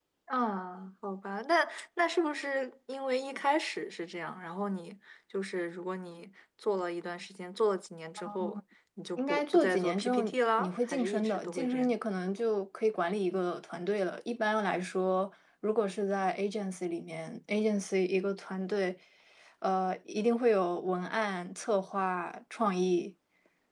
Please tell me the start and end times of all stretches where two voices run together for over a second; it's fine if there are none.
9.2-11.9

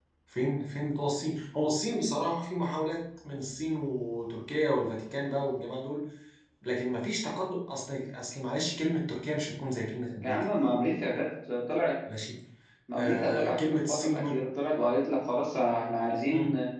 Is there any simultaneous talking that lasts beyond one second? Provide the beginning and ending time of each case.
12.9-14.4

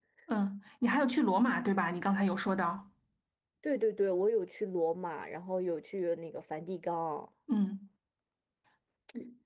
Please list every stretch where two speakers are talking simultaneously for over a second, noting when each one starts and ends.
none

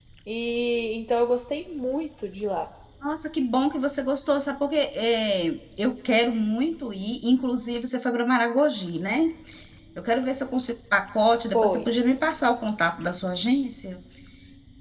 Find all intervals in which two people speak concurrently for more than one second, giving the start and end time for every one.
none

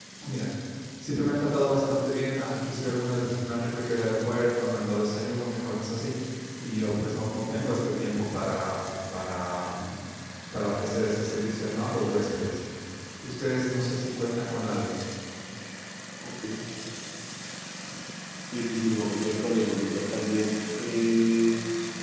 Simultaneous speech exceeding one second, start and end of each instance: none

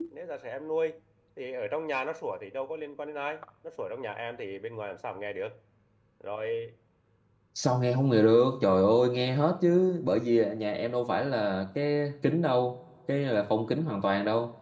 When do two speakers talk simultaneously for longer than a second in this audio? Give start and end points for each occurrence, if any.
none

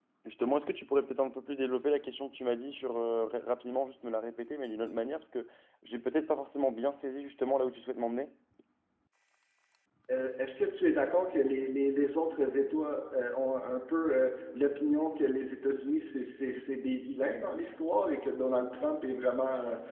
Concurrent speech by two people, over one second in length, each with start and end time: none

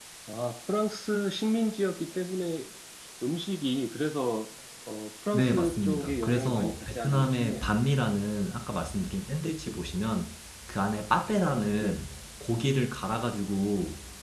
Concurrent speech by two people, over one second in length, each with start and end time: 5.3-7.8

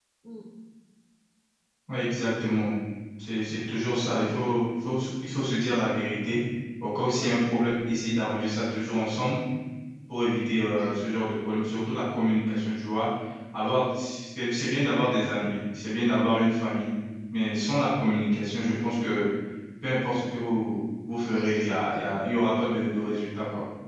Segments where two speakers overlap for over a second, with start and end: none

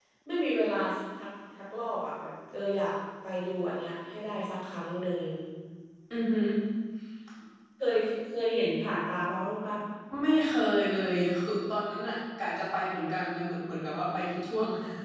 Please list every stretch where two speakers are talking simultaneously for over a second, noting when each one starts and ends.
none

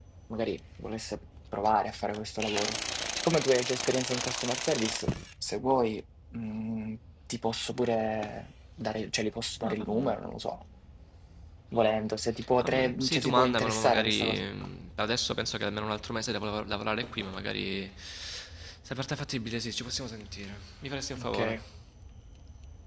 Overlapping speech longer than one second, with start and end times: 12.6-14.4

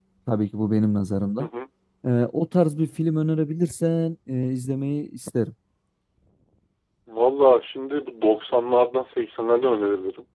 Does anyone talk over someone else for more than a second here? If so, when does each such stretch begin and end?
none

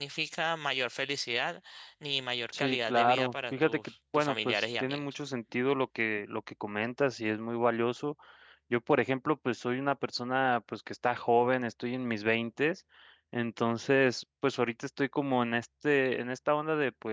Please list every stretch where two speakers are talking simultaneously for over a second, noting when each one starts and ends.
2.6-5.0

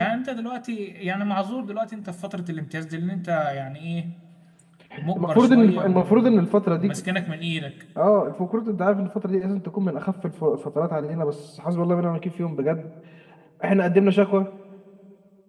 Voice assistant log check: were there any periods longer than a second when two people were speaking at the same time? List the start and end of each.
5.2-6.4

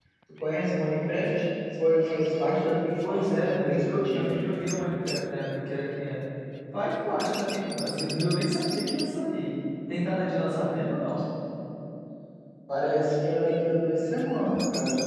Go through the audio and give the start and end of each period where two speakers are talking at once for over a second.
3.0-4.4

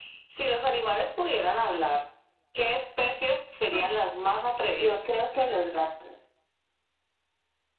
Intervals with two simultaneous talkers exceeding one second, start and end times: none

